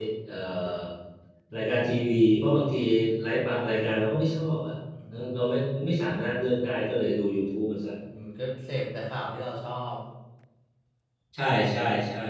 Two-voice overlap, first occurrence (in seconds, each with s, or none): none